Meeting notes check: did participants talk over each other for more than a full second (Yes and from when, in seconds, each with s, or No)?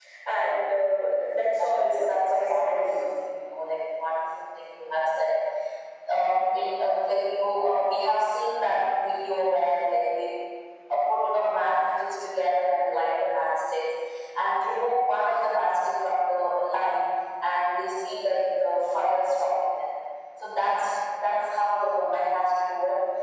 Yes, from 1.6 s